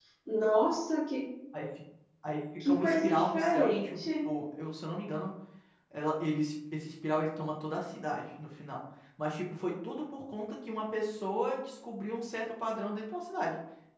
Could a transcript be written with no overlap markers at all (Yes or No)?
No